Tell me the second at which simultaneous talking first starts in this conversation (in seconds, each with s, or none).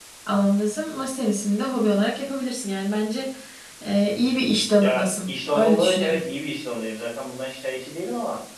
4.8 s